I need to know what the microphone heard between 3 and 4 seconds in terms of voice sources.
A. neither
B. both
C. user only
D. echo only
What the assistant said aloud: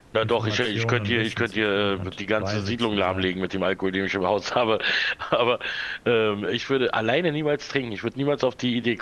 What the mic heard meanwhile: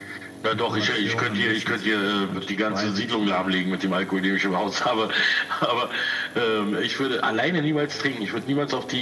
D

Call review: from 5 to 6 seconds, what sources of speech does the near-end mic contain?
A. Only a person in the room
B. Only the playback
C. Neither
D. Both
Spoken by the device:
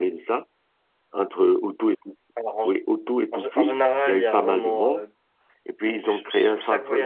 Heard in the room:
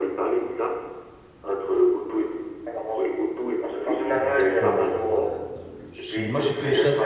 D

